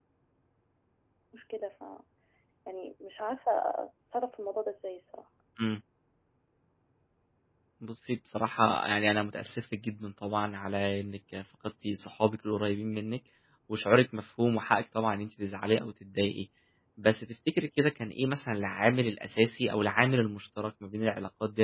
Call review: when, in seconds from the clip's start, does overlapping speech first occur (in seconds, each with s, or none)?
none